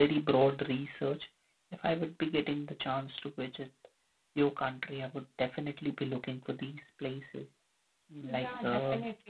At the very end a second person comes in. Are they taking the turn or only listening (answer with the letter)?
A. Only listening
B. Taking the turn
B